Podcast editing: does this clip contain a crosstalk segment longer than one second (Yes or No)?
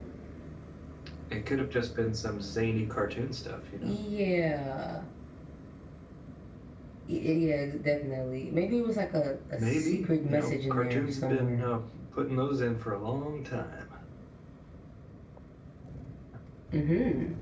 Yes